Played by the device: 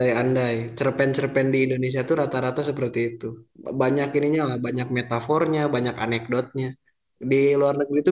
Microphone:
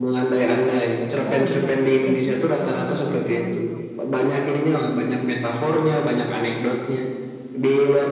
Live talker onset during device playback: 1.3 s

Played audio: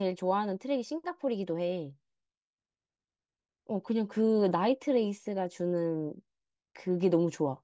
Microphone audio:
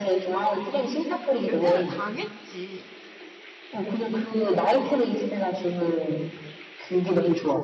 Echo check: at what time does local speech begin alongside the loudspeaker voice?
1.5 s

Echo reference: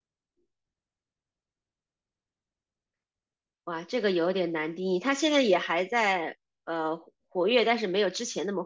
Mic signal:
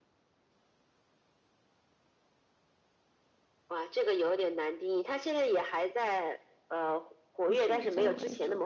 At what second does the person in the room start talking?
7.5 s

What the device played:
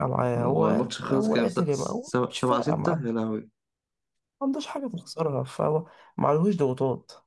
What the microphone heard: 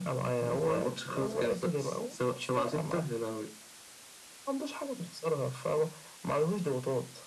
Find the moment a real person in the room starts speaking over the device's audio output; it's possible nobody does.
none

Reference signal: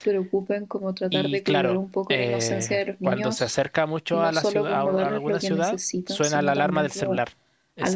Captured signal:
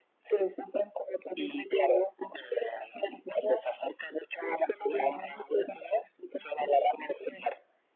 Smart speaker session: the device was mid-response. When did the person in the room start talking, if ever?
none

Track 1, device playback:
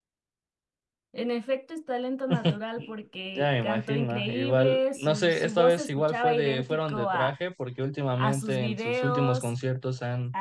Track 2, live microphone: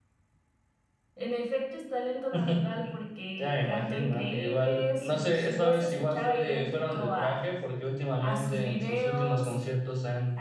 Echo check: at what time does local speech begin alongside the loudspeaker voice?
none

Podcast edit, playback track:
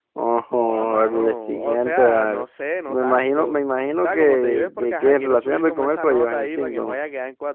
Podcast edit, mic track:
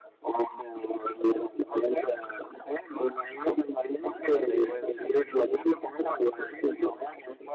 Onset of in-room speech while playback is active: 4.2 s

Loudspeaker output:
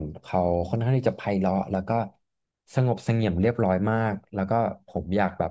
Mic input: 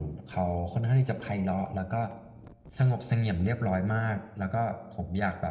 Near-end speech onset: none

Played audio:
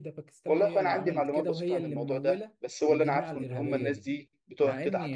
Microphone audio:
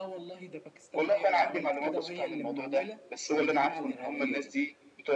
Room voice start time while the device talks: none

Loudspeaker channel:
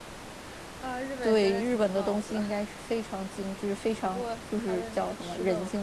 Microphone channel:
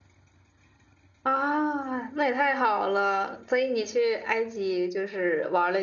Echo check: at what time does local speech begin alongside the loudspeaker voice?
1.2 s

